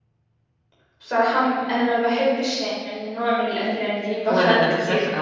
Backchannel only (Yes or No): No